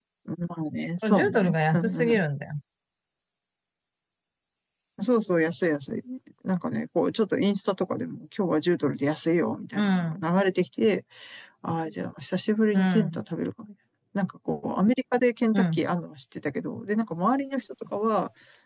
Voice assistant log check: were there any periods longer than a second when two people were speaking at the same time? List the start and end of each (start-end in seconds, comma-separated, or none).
1.0-2.2